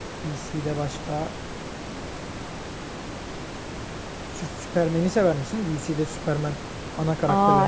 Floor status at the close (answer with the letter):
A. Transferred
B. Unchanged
A